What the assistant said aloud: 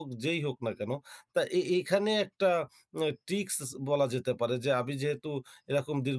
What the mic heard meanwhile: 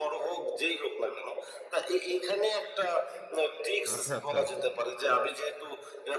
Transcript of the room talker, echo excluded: আচ্ছা, আচ্ছা।

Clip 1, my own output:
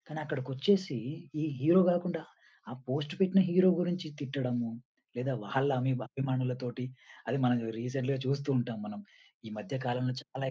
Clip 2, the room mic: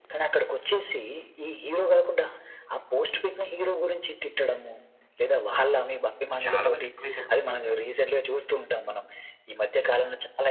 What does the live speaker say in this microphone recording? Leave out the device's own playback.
చాలా వరకు ఎక్కువైపోయింది మొత్తం అంతా.

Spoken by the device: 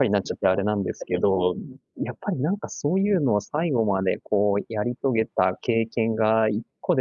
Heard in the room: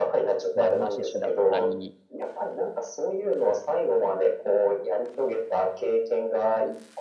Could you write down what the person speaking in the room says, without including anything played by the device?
ま、猪だったり、

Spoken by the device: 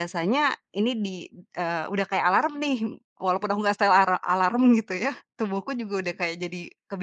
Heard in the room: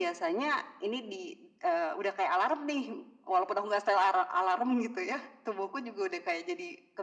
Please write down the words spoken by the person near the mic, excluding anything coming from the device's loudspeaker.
none

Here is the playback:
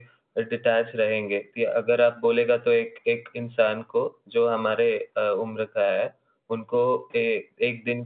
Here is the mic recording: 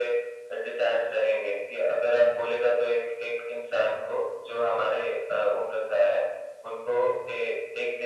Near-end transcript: none

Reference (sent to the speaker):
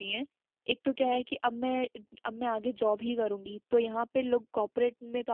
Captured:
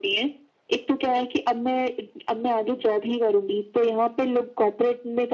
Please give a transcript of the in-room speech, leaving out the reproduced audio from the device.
none

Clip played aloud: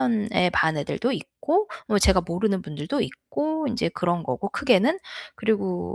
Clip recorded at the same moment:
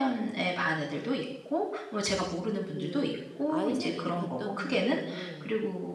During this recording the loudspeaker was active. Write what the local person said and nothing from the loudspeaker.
그 아이 생일이 같다는 것도

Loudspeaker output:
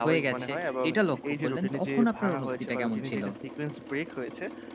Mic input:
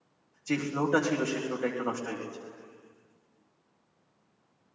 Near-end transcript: যে ফ্লো টা ছিল সেই ফ্লো টা একটু নষ্ট হয়ে গেছে।

